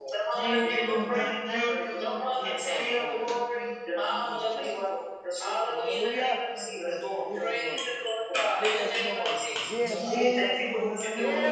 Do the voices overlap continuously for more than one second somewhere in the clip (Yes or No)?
Yes